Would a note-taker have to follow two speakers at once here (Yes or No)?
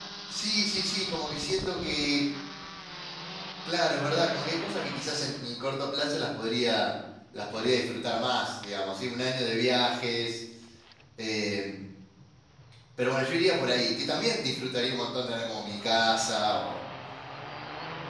No